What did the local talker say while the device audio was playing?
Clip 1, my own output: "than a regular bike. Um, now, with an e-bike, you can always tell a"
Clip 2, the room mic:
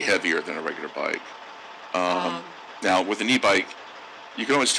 um

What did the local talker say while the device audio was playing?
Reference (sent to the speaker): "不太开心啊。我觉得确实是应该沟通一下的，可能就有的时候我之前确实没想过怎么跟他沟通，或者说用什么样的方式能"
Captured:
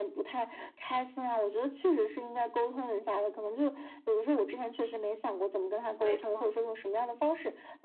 没错，

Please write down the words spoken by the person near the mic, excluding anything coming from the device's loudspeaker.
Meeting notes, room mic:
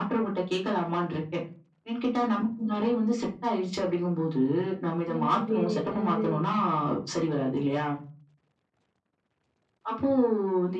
இந்த மாதிரி வேற ஏதாவது

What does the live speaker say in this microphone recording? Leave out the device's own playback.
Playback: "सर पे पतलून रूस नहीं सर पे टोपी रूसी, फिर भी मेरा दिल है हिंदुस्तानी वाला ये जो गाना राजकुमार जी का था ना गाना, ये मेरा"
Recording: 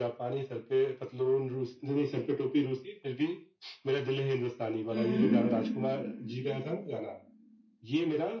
हम्म

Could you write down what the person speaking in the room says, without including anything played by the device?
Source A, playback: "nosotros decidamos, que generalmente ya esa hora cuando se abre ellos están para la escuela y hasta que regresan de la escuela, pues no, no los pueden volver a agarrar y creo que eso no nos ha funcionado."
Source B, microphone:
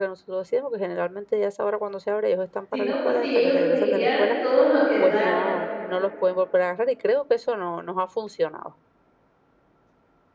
si no, pues sí, ellos se seguirían todo lo que da, ¿no?

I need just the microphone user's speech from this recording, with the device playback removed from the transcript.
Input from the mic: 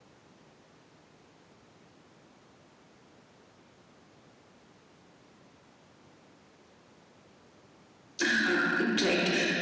हाँ, राइट।

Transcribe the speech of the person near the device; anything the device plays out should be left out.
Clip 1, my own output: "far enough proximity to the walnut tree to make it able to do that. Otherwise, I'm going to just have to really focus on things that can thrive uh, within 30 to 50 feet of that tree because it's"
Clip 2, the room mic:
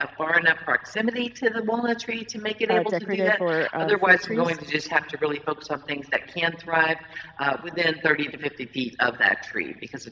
uh, decorative or um, fruit trees?

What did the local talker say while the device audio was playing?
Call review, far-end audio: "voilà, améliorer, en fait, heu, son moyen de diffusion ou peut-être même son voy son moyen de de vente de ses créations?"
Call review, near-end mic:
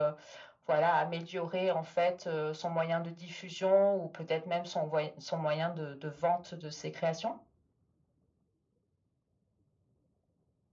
none

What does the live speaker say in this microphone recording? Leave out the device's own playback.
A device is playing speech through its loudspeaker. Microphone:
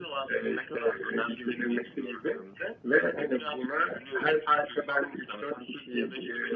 none

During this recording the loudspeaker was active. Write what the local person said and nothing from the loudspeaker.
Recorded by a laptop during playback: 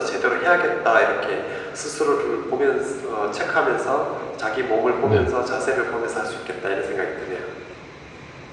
네.

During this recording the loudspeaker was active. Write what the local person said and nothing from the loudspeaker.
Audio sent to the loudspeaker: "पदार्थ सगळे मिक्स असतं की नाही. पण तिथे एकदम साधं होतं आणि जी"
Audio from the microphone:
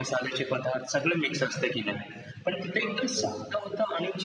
बरोबर.

